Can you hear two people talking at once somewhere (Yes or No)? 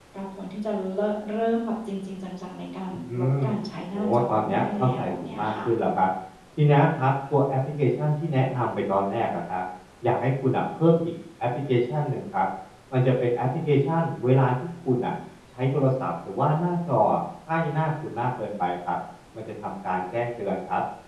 Yes